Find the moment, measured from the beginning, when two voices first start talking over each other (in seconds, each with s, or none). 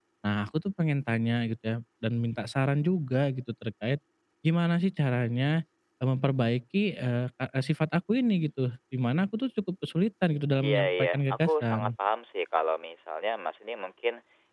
10.6 s